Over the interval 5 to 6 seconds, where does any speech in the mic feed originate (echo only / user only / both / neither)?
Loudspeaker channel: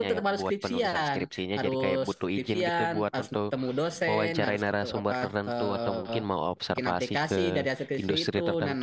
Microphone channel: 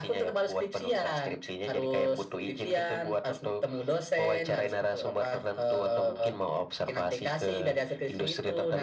echo only